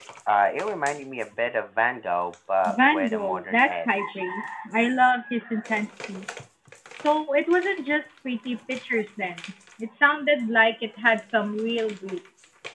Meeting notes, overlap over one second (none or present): present